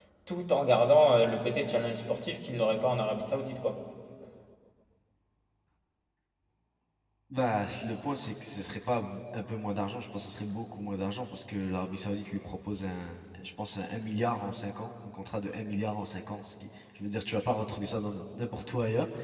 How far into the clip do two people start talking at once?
none

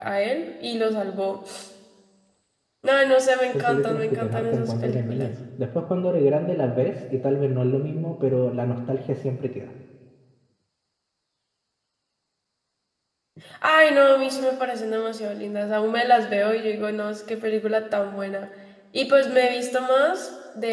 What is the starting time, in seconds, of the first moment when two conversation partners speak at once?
3.5 s

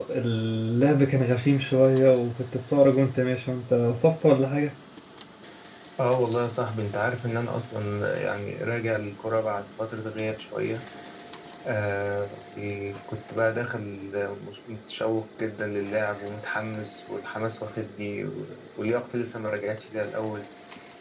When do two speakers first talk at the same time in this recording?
none

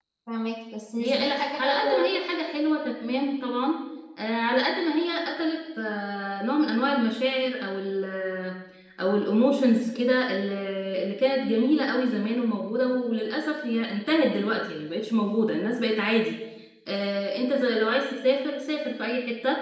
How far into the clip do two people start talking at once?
1.0 s

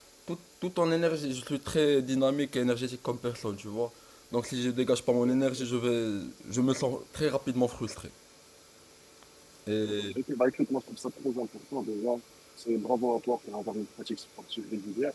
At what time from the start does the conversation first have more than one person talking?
none

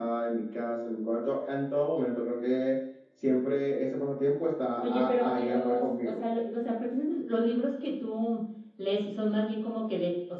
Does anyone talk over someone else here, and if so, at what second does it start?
4.8 s

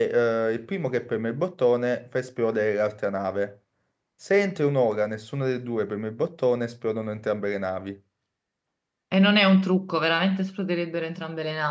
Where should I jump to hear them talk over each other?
none

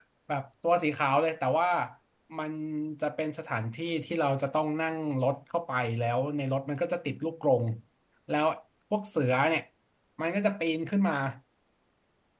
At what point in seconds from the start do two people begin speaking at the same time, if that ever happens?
none

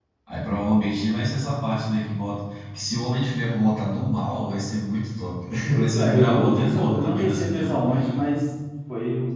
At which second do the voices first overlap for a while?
5.7 s

